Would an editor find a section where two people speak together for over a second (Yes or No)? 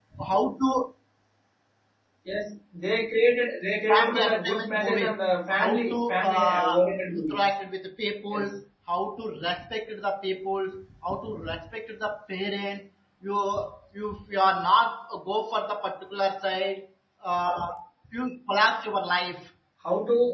Yes